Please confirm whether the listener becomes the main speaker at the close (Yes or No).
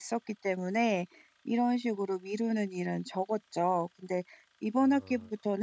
No